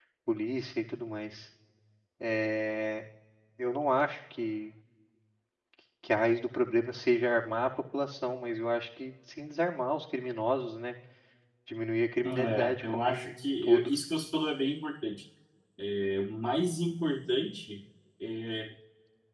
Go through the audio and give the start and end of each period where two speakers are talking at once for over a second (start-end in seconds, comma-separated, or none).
12.2-13.9